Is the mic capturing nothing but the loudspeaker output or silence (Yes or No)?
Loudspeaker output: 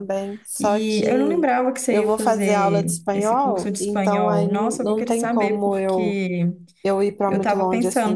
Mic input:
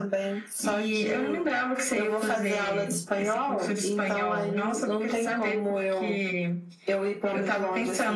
Yes